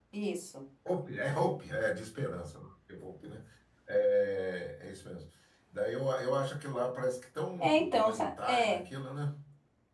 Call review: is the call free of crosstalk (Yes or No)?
No